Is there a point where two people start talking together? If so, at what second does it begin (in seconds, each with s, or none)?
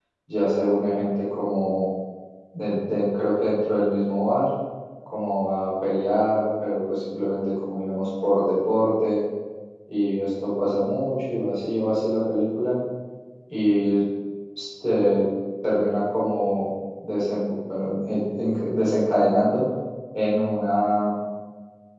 none